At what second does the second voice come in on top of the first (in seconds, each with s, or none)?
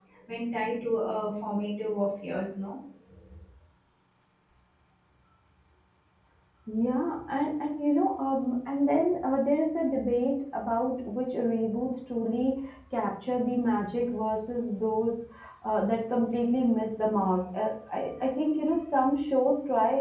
none